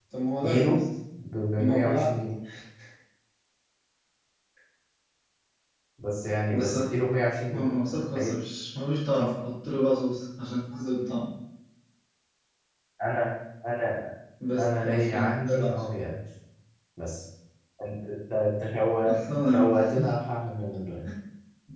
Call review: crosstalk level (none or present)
present